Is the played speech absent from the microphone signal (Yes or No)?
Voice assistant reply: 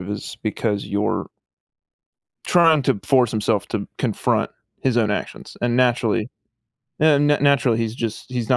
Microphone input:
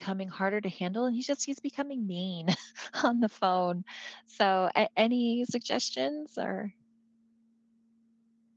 Yes